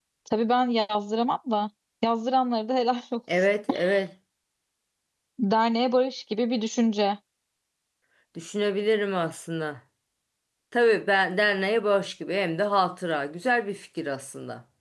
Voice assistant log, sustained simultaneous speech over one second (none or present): none